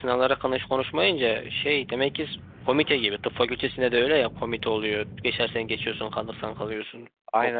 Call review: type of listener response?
taking over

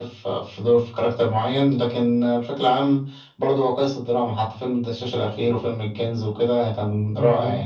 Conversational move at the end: taking over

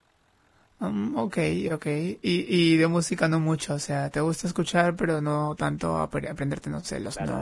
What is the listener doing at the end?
taking over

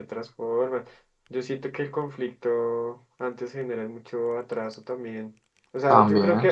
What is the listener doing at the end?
listening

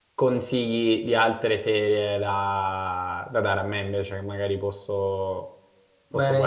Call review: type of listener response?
taking over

